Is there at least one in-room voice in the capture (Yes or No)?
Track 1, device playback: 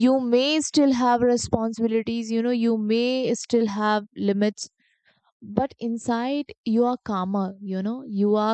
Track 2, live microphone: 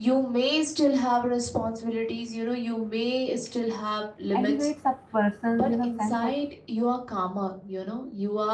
Yes